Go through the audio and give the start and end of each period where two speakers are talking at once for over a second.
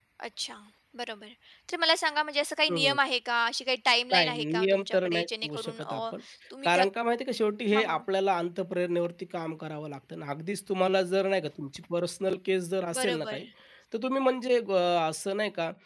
4.1-6.0

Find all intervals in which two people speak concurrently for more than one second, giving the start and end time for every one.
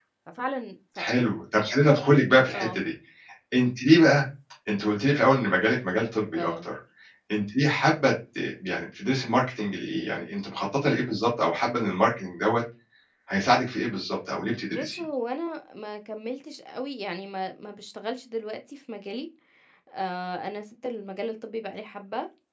none

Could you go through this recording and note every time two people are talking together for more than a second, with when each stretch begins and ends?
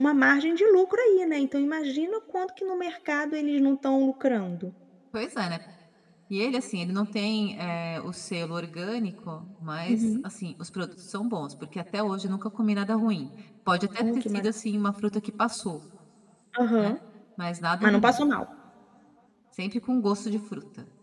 none

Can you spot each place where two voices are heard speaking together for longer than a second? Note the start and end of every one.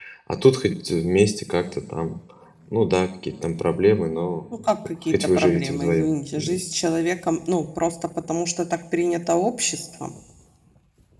5.1-6.7

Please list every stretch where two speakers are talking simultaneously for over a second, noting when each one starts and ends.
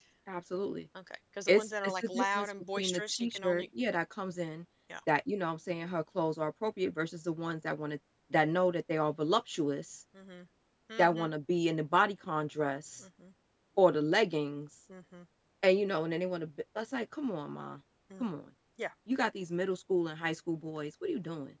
1.5-3.6

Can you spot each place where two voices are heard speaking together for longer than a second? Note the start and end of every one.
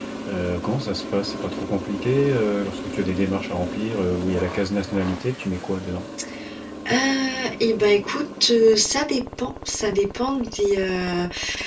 none

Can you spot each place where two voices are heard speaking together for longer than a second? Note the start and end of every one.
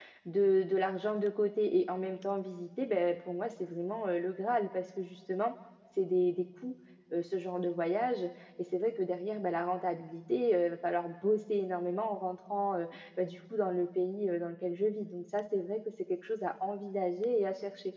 none

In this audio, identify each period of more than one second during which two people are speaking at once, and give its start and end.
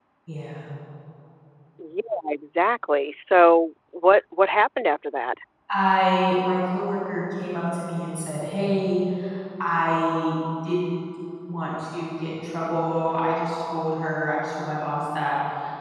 none

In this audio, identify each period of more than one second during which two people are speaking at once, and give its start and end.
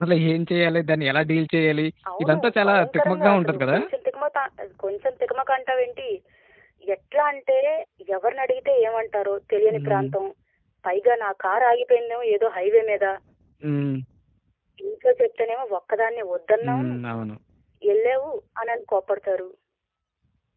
2.2-3.8

